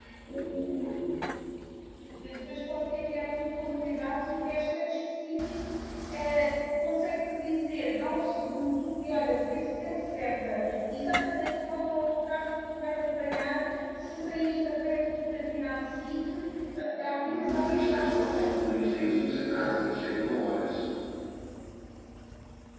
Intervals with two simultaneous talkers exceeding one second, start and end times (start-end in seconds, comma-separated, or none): 17.2-19.1